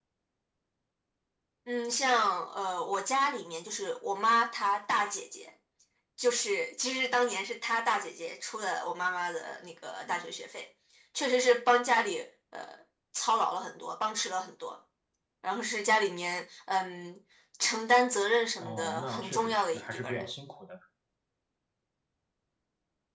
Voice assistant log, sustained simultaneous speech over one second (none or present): present